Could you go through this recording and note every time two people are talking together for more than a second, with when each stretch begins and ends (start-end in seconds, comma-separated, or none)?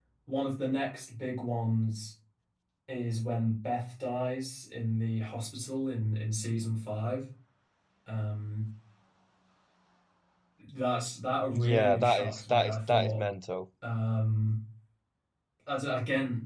11.5-13.2